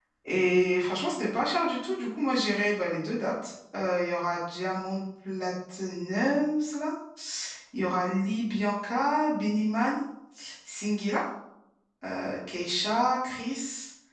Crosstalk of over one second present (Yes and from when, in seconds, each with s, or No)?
No